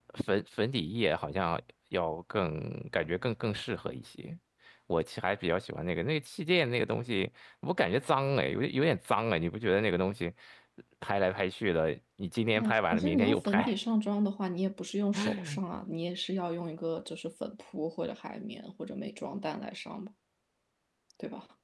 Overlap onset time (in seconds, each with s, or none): 12.6 s